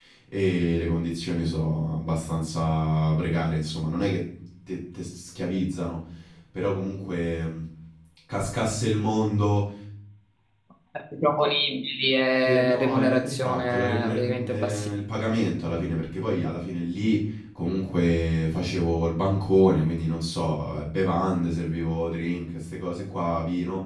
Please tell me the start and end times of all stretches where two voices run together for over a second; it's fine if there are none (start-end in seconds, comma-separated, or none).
12.4-14.9